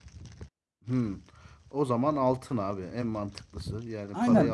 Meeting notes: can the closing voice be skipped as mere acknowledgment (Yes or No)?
No